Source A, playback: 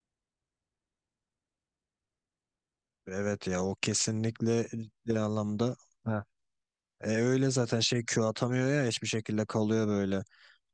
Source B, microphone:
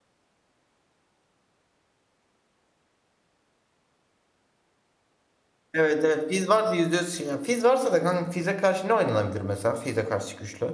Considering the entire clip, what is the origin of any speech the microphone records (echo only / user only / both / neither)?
user only